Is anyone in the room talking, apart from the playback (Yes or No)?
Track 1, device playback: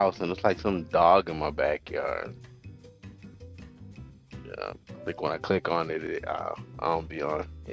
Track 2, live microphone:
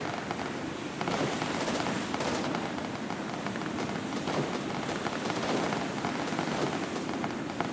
No